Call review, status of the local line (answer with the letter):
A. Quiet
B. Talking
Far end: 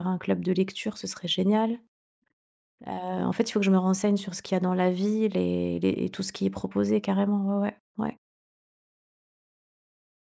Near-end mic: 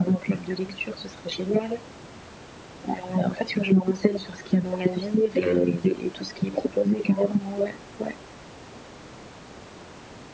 B